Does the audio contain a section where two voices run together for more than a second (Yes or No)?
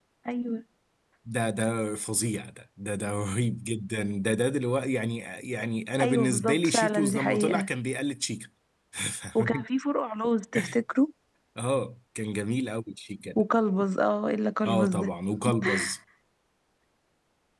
Yes